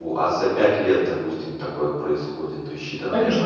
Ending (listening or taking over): taking over